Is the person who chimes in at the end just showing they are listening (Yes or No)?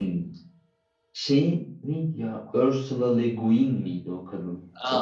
No